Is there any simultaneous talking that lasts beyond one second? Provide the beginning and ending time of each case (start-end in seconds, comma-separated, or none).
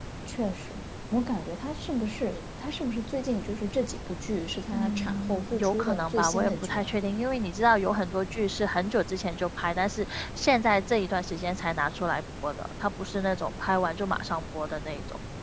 4.7-6.9